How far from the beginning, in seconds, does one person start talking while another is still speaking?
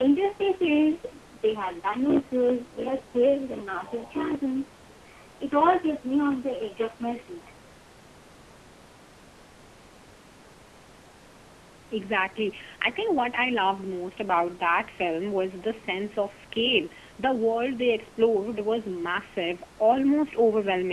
none

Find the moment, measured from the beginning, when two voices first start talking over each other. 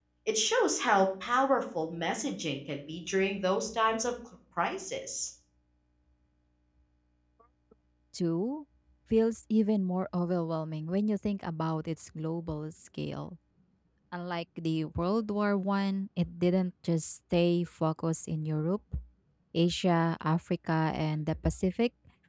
none

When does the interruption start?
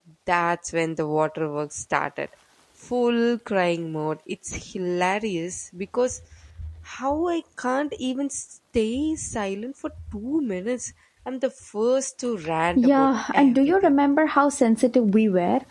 12.8 s

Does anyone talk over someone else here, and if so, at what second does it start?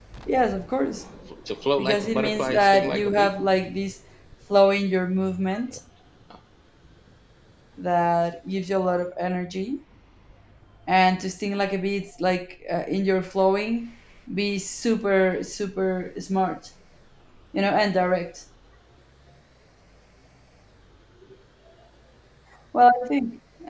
1.8 s

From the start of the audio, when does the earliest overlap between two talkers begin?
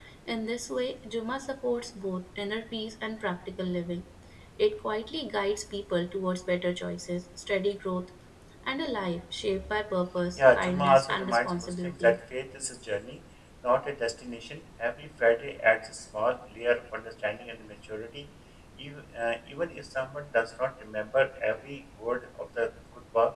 10.4 s

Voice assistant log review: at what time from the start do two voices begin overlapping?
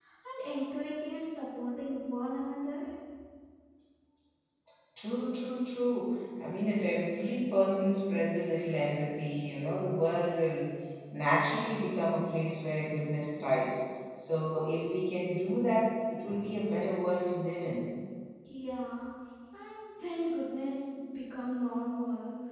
none

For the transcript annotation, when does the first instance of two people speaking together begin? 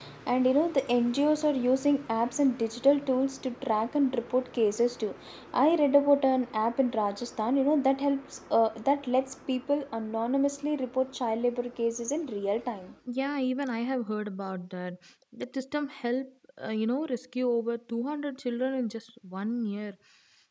none

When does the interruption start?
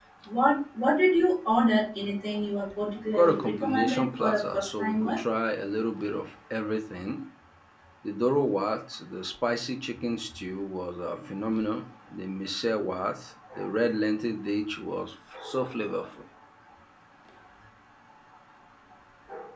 3.1 s

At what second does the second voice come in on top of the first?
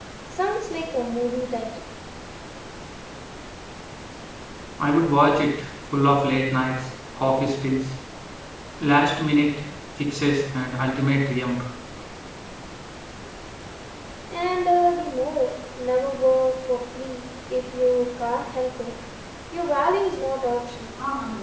none

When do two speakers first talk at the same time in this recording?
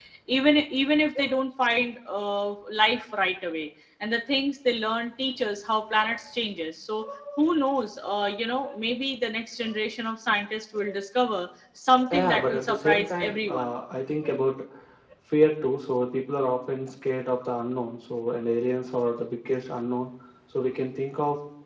12.1 s

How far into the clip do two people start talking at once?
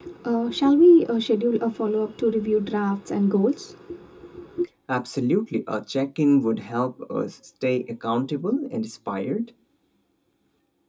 none

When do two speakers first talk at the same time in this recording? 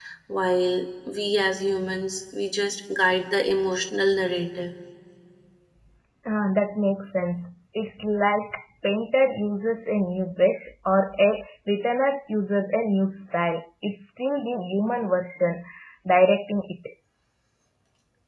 none

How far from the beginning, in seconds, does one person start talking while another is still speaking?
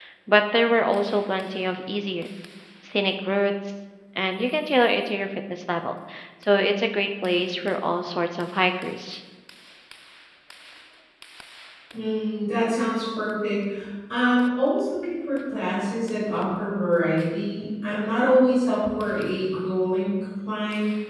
none

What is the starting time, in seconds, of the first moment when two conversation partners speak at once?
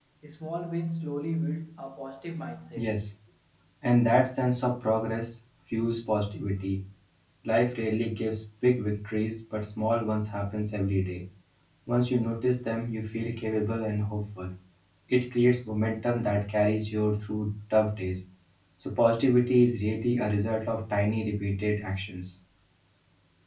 none

